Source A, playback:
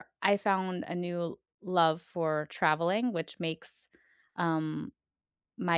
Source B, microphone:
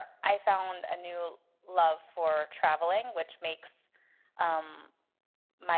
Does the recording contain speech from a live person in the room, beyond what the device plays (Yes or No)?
No